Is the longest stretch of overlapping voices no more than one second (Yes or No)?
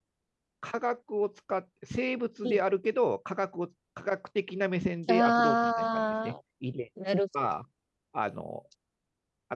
No